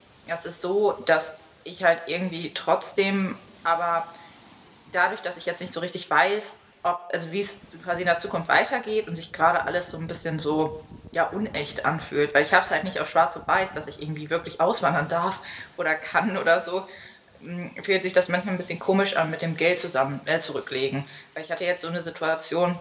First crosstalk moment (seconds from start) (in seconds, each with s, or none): none